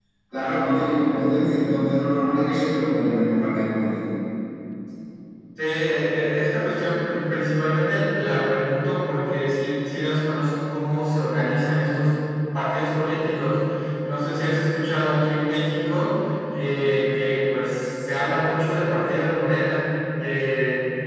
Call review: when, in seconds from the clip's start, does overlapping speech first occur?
none

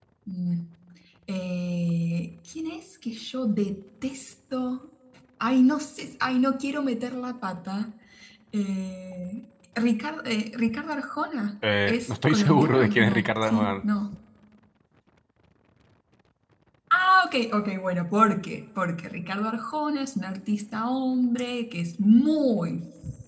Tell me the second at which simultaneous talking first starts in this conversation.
11.9 s

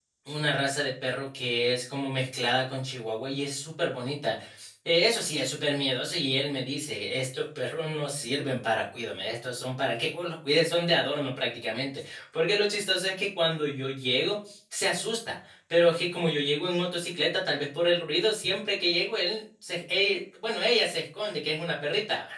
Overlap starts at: none

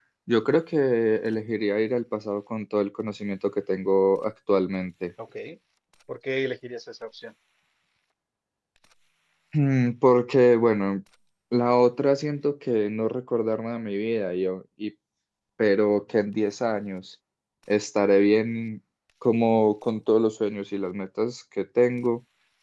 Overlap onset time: none

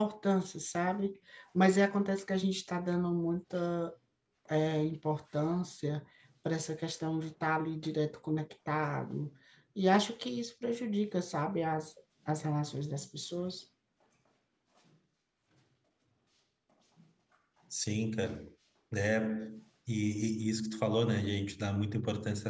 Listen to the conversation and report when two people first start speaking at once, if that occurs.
none

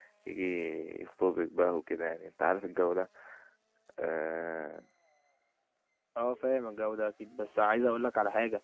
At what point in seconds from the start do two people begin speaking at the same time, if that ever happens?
none

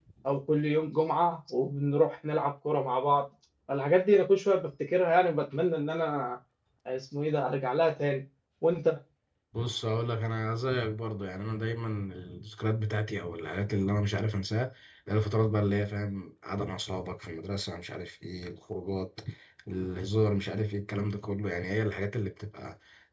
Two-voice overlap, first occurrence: none

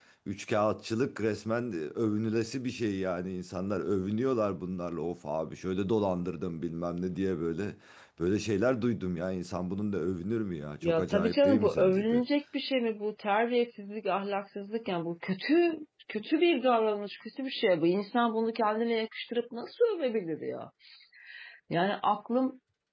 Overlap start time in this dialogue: 10.8 s

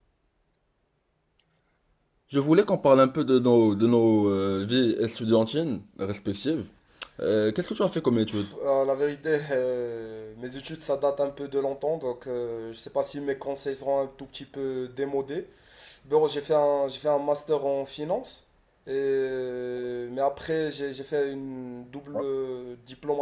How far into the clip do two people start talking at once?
none

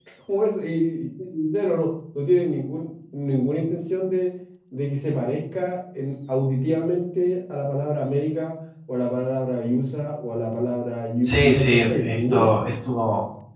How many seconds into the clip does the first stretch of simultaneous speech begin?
11.2 s

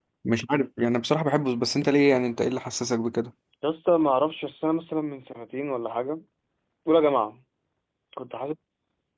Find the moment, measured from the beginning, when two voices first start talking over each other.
none

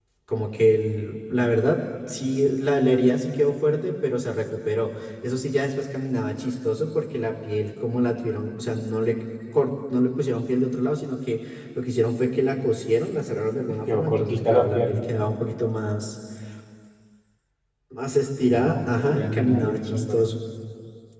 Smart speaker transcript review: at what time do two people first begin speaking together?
13.7 s

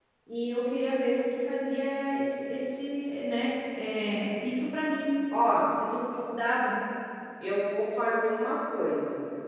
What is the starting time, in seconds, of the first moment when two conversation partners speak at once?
none

